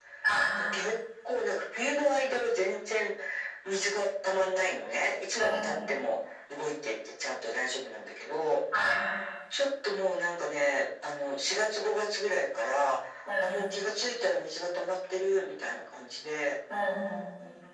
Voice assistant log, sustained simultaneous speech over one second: none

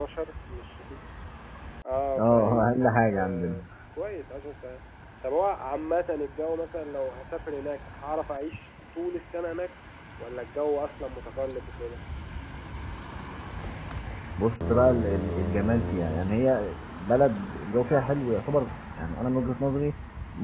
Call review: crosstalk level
present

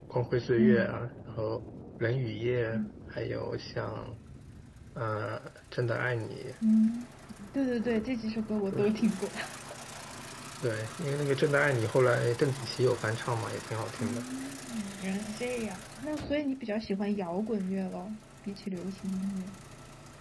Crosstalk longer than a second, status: none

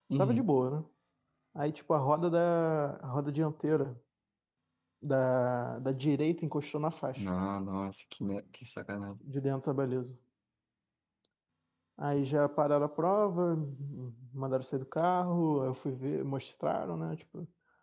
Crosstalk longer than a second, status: none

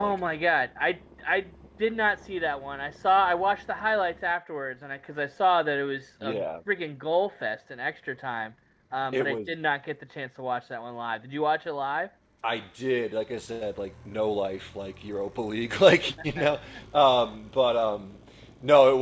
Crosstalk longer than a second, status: none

